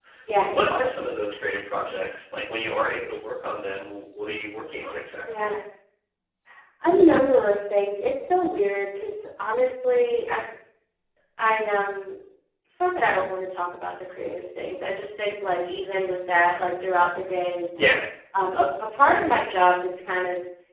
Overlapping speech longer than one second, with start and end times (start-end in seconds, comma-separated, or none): none